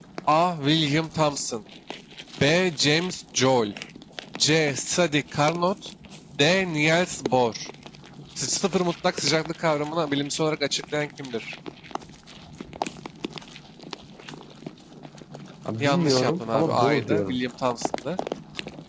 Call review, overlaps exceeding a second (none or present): present